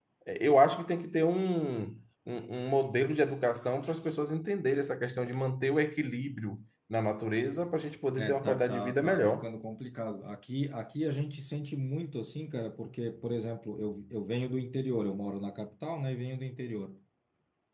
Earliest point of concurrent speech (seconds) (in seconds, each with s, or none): 8.2 s